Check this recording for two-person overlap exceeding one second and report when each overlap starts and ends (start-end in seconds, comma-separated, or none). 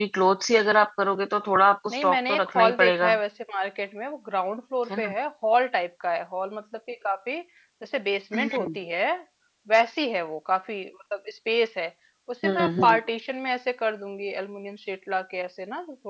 1.9-3.2